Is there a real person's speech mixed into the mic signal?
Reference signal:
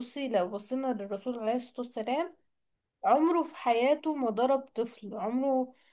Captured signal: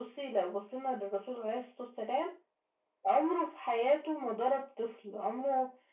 No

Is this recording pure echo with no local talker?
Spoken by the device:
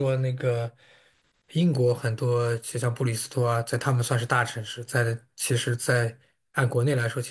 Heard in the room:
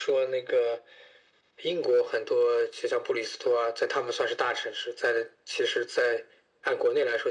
Yes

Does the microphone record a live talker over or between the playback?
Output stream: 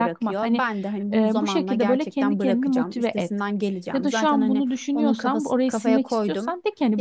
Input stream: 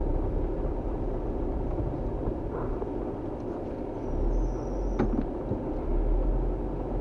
No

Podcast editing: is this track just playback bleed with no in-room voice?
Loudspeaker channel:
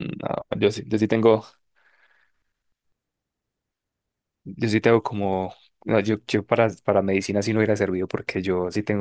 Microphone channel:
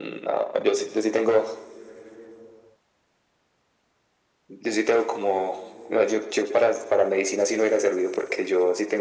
Yes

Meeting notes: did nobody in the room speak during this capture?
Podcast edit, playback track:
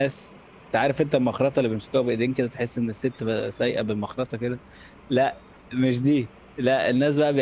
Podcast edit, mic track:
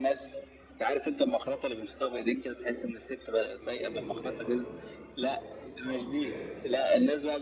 No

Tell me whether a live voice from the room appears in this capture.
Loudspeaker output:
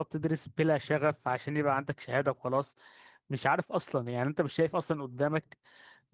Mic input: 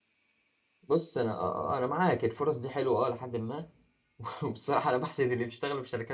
Yes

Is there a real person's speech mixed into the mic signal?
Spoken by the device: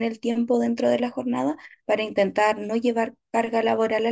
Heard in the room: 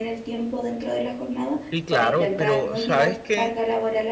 Yes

